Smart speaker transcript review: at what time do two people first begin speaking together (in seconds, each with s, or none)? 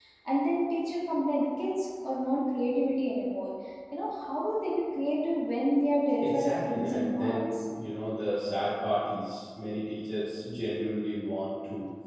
6.2 s